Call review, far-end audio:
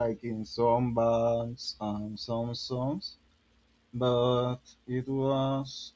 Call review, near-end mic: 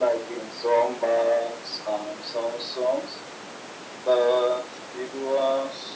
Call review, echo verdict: present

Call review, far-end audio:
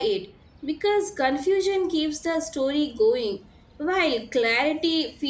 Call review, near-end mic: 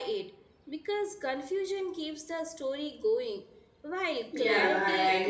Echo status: present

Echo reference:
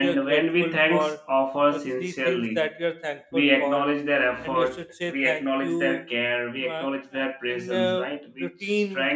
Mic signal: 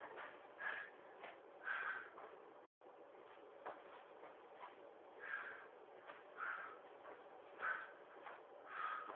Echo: none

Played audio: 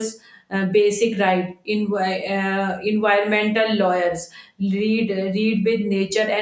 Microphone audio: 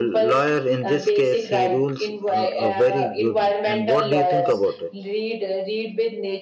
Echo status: present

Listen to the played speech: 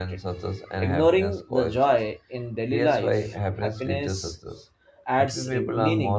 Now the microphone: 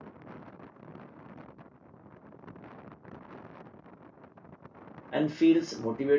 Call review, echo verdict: none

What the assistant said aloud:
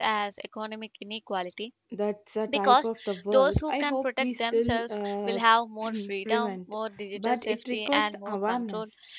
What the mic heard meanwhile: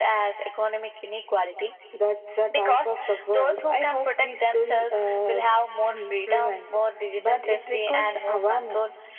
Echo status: present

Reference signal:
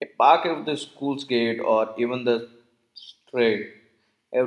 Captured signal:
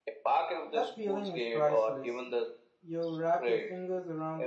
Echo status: present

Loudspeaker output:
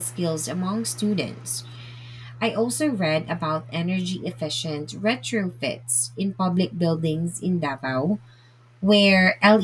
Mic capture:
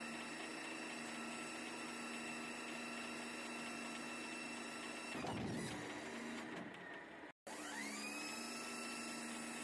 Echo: none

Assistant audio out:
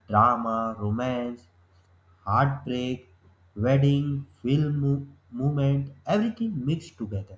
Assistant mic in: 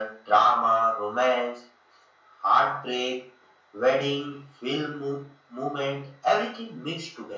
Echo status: present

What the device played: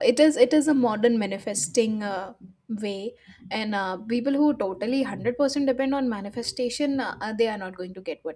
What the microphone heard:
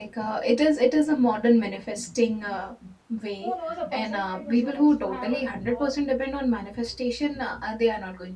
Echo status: present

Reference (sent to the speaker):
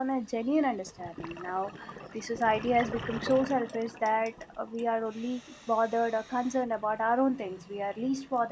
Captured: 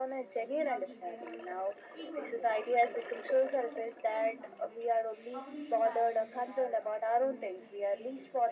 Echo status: present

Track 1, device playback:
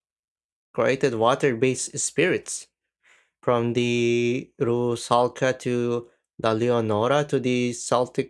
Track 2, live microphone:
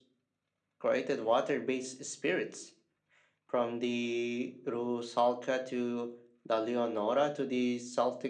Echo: present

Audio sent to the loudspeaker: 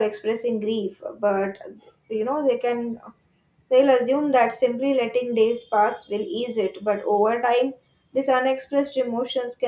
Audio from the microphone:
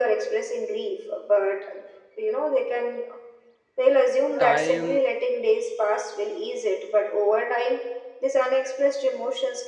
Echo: present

